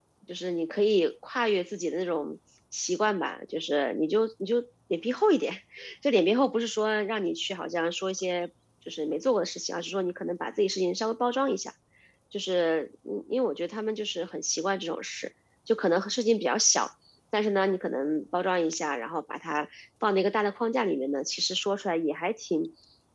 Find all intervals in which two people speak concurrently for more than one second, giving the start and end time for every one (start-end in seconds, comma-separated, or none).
none